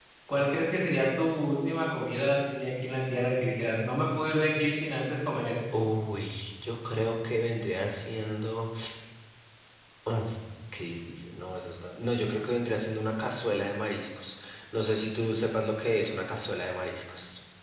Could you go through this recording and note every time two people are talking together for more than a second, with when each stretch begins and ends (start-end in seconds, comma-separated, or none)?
none